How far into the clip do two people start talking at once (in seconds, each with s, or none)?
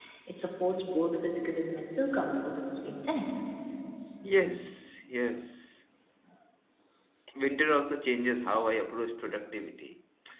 none